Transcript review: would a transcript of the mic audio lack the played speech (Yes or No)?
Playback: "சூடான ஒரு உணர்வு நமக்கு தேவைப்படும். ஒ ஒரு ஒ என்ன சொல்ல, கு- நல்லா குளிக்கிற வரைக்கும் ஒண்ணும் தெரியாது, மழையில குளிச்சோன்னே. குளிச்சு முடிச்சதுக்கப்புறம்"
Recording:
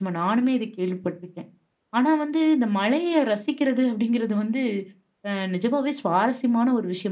Yes